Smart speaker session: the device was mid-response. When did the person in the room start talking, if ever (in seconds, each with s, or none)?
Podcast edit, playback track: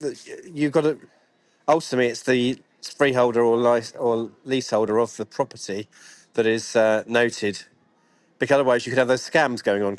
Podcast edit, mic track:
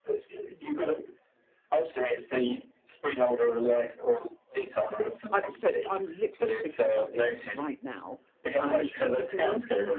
5.3 s